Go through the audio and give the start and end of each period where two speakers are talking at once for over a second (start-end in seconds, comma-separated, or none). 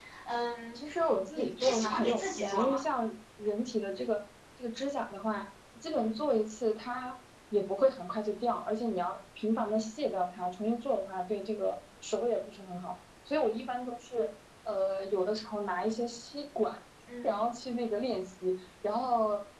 1.3-2.8